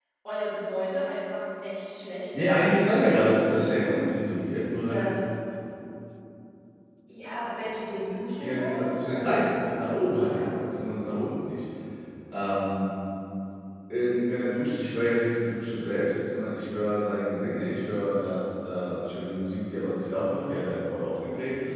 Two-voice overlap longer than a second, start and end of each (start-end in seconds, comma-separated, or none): 2.4-4.0, 8.4-10.5